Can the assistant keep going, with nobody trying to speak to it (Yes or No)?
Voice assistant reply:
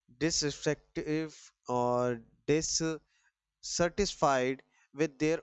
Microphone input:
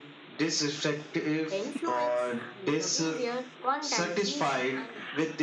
No